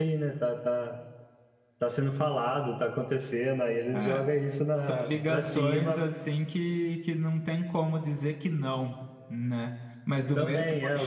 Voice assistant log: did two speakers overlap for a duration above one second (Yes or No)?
Yes